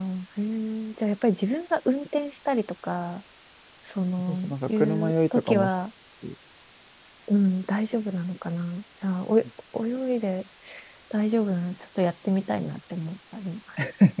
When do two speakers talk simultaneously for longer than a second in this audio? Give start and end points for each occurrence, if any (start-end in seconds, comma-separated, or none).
4.2-5.7